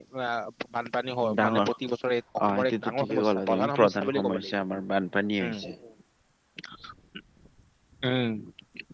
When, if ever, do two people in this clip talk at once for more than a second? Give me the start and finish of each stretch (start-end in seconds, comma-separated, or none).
2.4-4.5